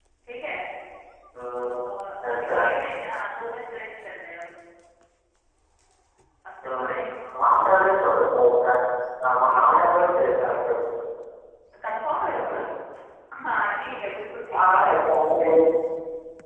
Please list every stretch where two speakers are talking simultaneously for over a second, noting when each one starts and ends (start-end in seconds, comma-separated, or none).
none